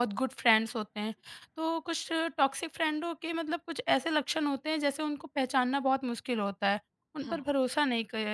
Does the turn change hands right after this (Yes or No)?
No